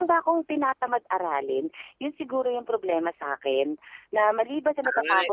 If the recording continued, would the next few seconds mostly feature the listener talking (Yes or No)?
No